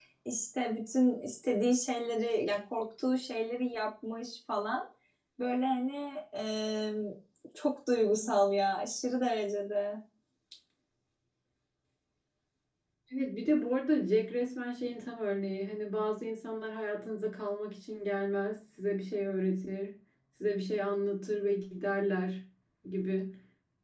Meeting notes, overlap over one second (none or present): none